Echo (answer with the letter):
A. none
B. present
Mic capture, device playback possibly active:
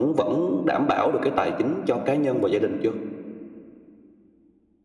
B